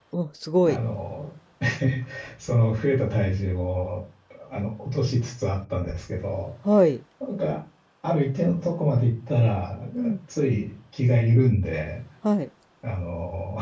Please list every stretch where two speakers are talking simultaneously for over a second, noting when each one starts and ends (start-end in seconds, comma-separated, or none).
none